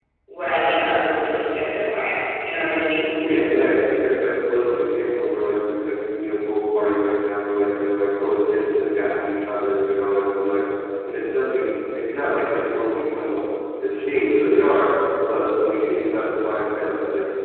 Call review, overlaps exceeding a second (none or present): none